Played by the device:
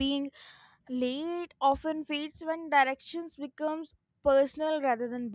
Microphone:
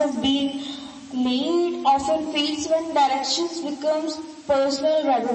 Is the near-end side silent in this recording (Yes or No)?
Yes